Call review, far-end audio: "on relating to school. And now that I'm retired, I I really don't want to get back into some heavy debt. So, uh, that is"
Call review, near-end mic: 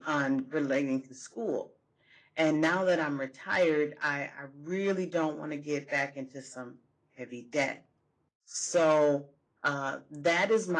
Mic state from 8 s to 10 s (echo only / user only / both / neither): echo only